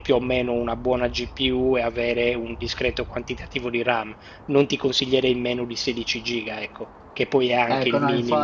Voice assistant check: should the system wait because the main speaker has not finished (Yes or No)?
No